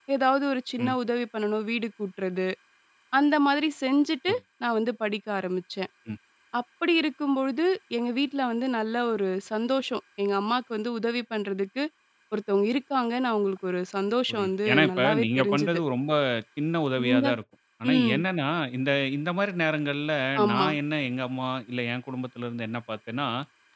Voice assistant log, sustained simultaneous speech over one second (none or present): present